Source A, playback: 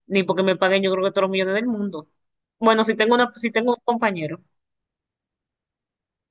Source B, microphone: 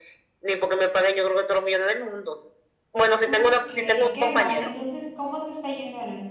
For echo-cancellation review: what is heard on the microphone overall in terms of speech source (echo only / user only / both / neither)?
both